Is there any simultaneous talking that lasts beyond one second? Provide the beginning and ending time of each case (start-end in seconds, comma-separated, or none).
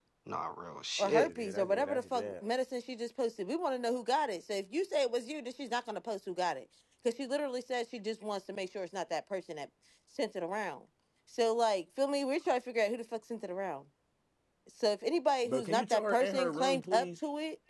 1.0-2.3, 15.4-17.1